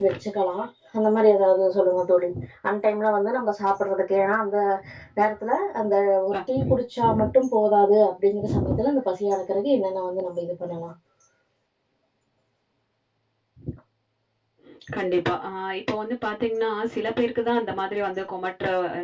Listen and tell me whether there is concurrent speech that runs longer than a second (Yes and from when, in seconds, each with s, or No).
No